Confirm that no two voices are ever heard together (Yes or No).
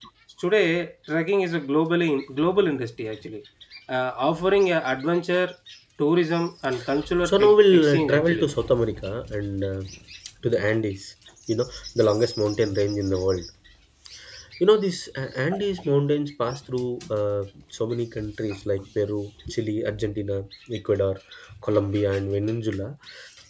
No